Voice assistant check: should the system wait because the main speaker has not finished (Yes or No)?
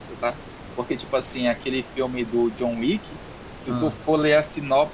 Yes